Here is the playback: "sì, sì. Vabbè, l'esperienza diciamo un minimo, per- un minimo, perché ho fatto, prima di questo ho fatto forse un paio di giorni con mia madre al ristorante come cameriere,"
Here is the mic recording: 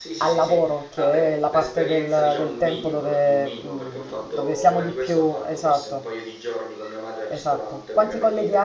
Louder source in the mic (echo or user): user